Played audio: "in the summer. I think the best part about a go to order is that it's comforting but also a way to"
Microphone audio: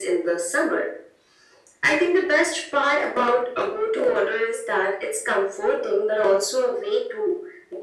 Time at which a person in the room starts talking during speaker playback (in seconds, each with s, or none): none